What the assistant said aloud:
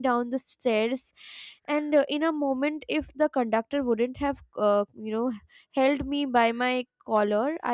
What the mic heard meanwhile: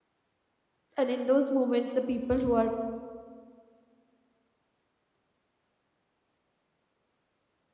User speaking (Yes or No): Yes